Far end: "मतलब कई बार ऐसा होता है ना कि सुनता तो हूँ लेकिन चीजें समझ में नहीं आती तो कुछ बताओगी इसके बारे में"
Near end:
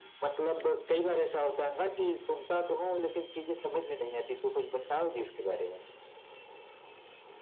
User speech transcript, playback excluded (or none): none